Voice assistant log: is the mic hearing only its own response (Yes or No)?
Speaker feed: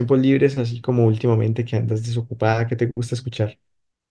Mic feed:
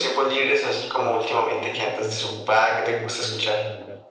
No